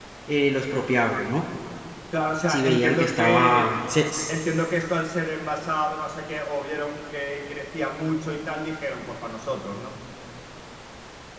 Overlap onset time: 2.5 s

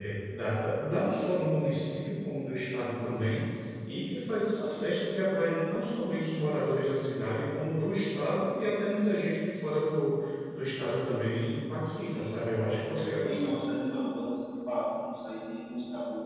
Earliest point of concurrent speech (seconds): 12.0 s

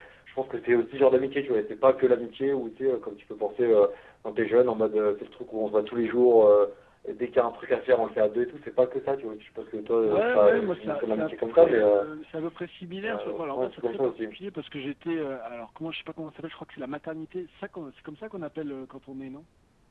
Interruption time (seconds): 10.0 s

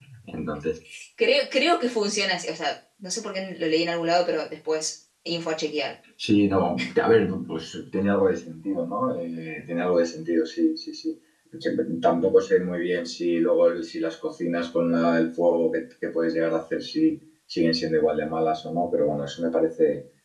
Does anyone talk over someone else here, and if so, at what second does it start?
none

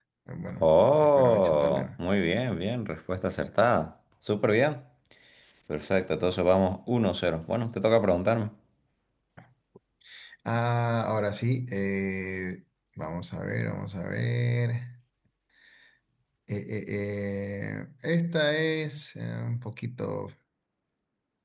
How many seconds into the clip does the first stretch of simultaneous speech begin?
0.6 s

